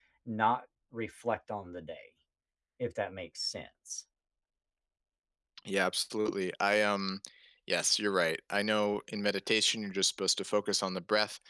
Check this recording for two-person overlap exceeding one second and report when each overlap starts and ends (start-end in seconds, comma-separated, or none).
none